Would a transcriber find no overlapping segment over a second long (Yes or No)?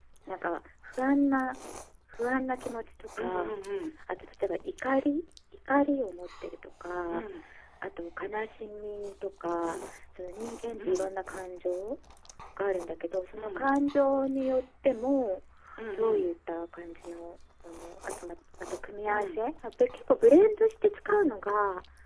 Yes